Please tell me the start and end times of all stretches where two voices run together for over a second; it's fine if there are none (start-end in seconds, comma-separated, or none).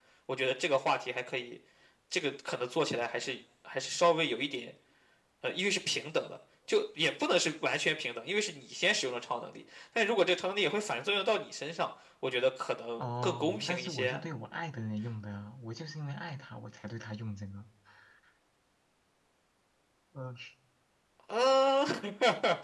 13.0-14.2